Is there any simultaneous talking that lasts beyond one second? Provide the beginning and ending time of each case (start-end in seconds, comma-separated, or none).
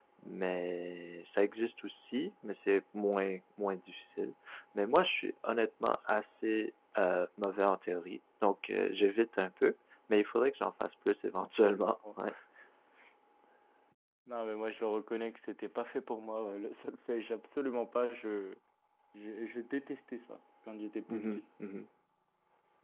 none